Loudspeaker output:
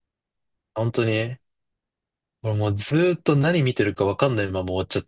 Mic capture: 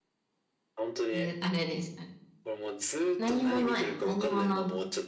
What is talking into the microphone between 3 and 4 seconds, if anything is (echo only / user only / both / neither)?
both